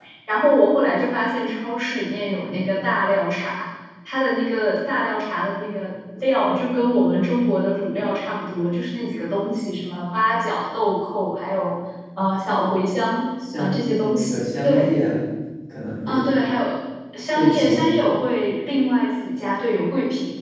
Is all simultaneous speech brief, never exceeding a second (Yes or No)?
No